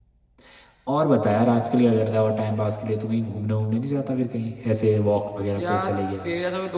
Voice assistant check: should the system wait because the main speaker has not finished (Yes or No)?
No